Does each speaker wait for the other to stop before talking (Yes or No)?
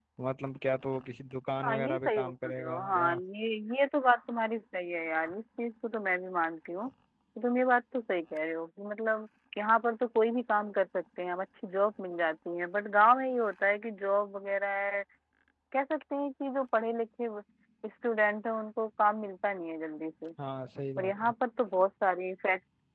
No